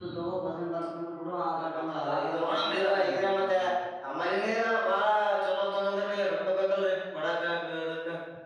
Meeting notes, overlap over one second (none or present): present